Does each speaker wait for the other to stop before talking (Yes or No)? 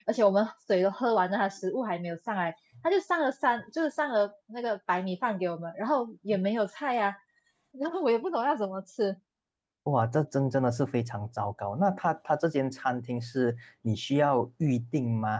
Yes